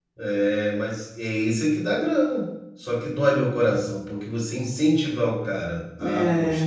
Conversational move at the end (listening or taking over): listening